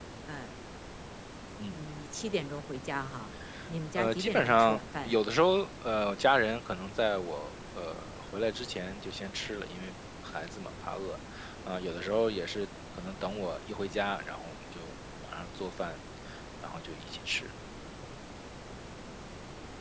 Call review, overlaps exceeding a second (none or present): present